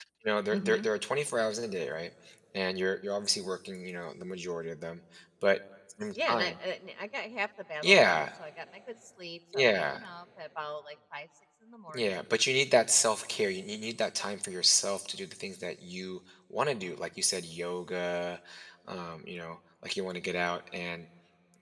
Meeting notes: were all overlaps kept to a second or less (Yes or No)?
Yes